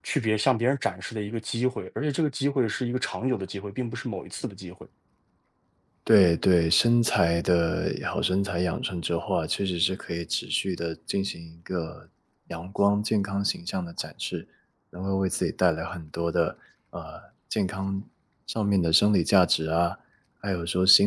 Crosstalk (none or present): none